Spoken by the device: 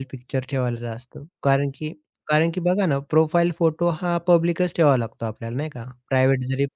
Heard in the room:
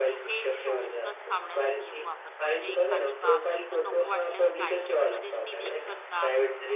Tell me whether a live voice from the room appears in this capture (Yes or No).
Yes